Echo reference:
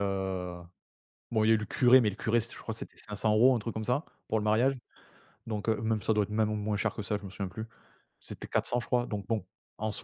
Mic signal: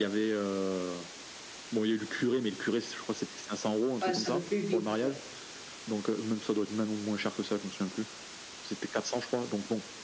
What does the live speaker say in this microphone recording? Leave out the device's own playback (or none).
Ouais, ça va plus vite, ouais.